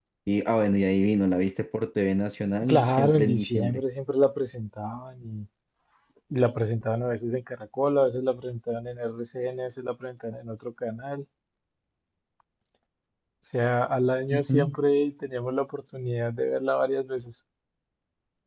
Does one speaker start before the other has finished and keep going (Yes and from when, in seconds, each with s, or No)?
Yes, from 2.6 s